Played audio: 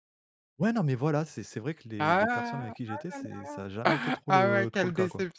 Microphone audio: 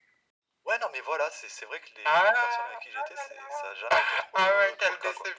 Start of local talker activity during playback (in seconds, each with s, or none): none